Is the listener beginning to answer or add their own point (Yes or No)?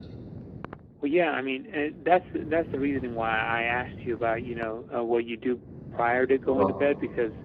No